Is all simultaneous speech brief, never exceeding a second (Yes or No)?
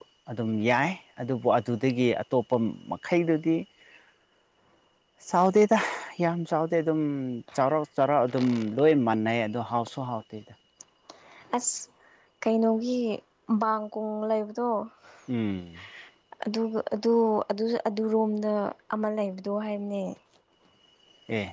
Yes